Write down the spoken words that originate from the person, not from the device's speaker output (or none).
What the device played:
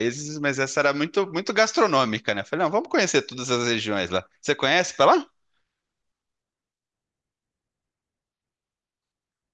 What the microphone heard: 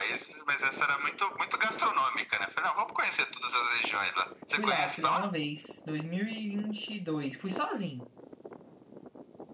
fui lá, fui lá uma vez, dois mil e e vinte e dois Fui sozinho.